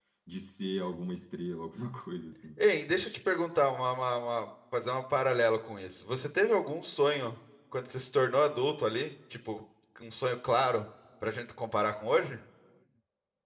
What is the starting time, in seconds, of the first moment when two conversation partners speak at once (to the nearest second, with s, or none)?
none